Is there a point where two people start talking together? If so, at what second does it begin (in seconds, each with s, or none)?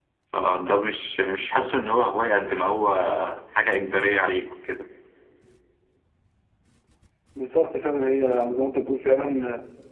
none